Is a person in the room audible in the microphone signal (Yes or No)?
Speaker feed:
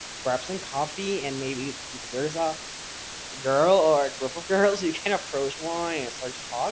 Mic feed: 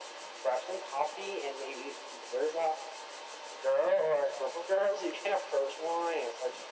No